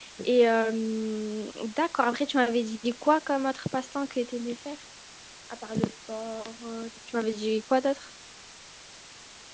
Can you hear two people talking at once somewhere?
No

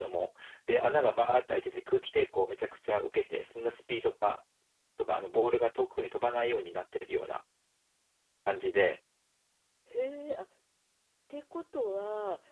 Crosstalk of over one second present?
No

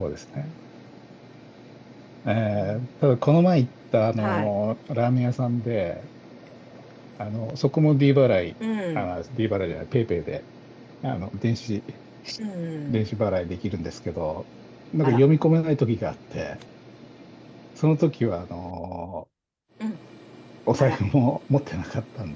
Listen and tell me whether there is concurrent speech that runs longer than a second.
No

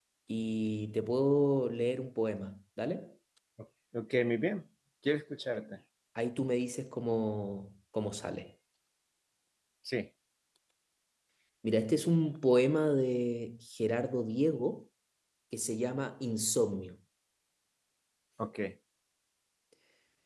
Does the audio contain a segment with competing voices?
No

